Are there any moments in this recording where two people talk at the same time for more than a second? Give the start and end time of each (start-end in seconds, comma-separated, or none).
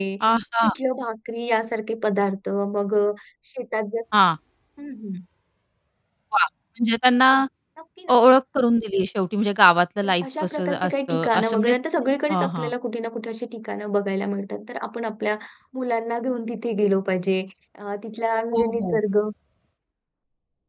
10.0-11.7